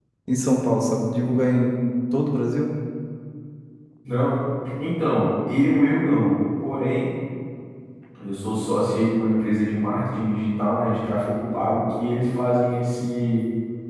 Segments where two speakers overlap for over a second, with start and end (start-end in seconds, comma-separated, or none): none